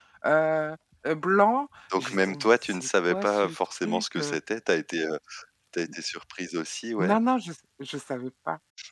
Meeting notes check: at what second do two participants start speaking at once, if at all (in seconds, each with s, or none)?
1.9 s